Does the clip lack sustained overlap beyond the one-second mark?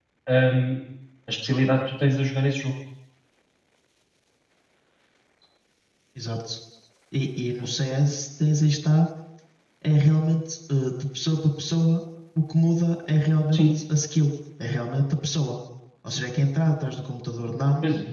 Yes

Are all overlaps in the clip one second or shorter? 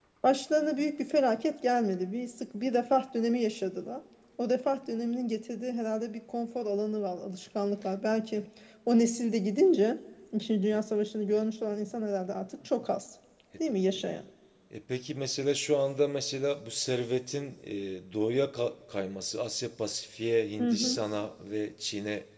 Yes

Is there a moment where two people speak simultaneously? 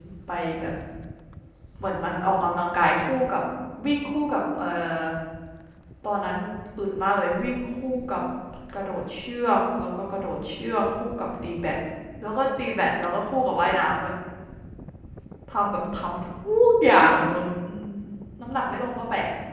No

